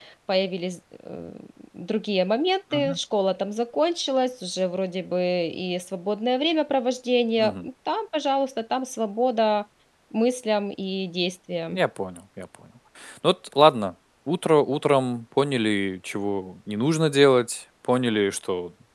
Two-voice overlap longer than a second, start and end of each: none

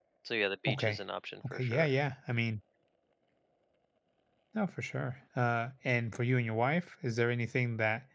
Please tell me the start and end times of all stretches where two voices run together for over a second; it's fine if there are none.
none

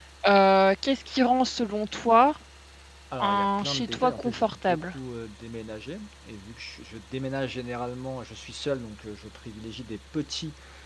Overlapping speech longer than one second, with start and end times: 3.2-4.8

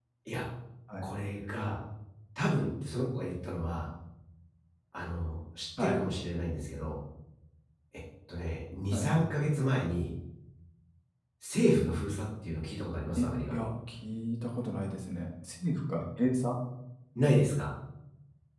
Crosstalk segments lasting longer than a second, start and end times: none

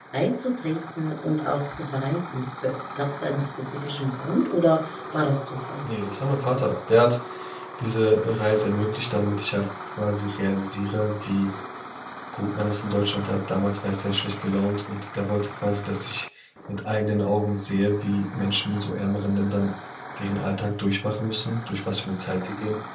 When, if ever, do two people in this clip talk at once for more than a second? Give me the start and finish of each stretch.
none

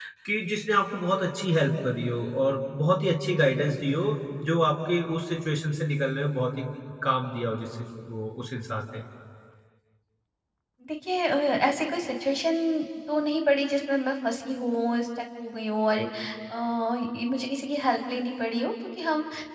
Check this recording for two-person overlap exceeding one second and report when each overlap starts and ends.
none

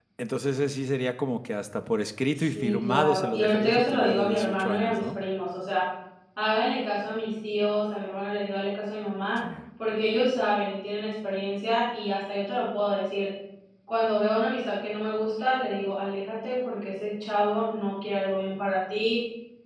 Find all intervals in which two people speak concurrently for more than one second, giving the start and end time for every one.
2.4-5.2

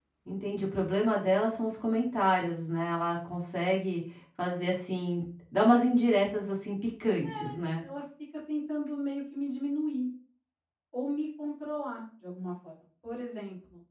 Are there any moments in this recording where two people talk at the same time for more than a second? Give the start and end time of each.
none

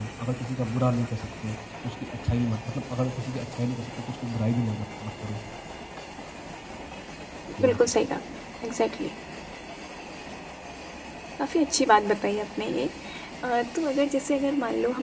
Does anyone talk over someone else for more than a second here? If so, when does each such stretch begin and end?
none

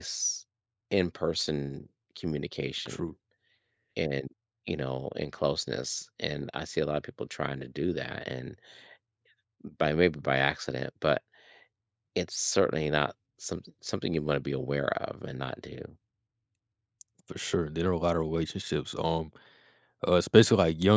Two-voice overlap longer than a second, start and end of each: none

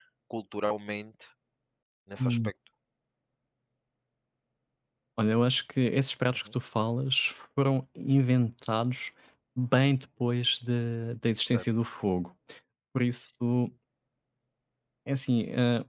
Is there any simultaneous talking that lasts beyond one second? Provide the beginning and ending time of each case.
none

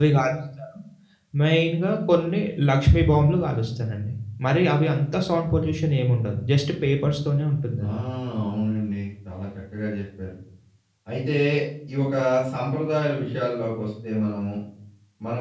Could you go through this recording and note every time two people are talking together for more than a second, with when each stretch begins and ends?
none

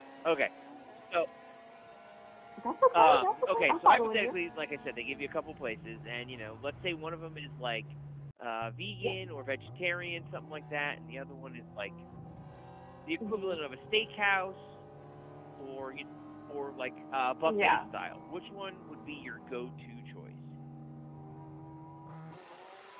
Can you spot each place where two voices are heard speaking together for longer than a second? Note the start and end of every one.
2.9-4.3

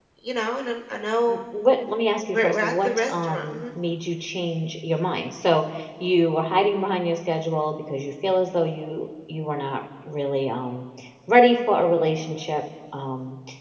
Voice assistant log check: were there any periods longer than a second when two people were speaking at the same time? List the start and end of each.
2.3-3.6

